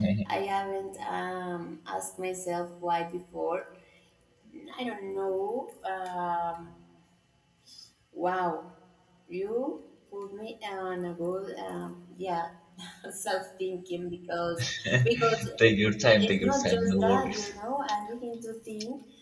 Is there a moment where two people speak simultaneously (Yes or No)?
Yes